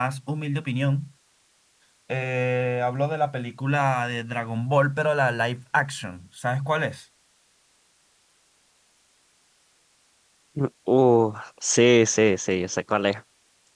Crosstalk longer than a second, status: none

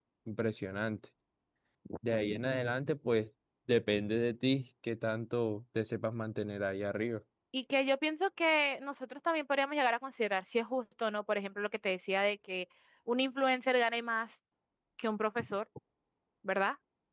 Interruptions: none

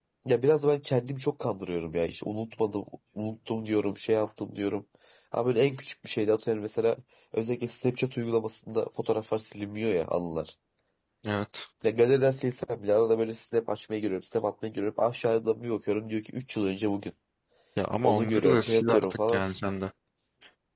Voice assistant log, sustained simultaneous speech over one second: present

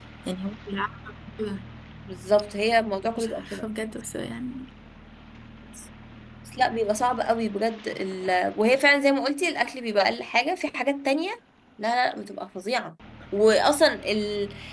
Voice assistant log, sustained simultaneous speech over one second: none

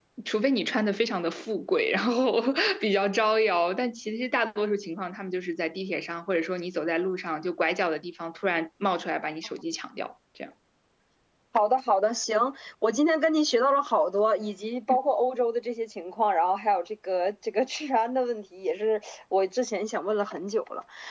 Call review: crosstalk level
none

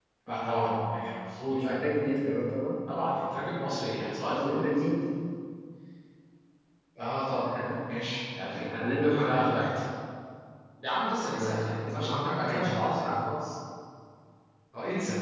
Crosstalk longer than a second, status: present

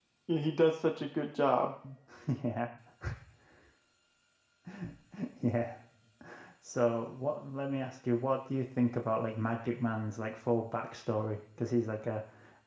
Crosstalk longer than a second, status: none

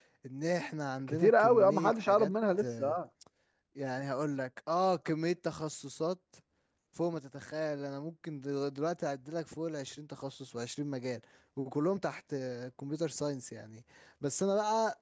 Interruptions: present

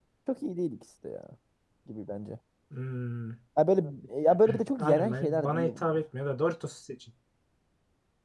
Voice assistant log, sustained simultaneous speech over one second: present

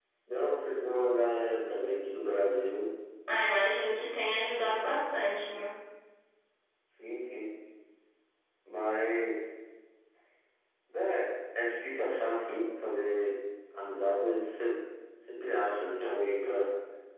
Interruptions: none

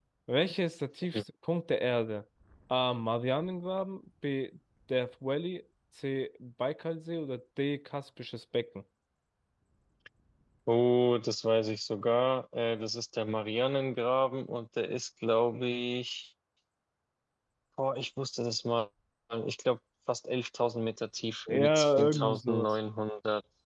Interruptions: present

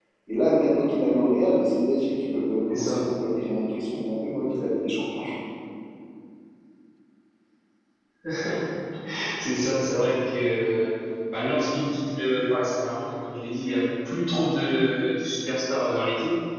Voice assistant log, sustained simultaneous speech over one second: none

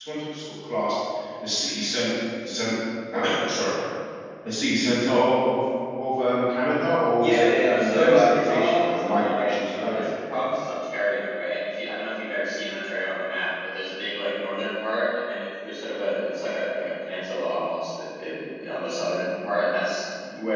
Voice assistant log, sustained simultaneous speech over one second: present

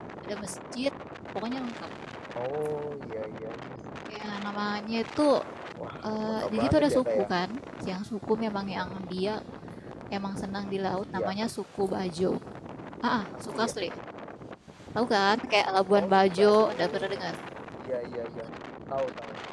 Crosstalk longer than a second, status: present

